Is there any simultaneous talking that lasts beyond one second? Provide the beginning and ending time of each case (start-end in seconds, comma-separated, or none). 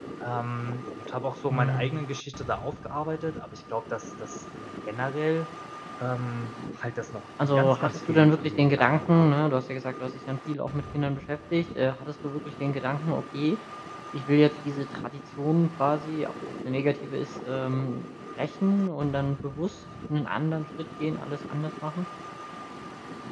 7.4-9.3